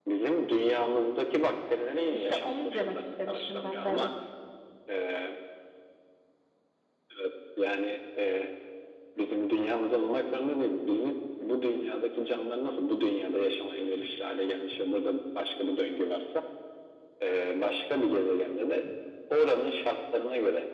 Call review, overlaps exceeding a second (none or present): present